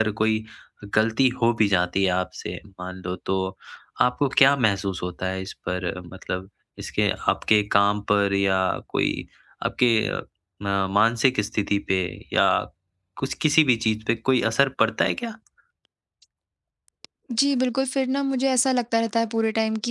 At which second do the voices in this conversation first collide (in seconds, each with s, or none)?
none